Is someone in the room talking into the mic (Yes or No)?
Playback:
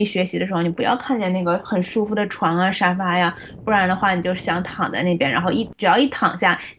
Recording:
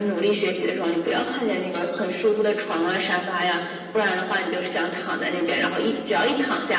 No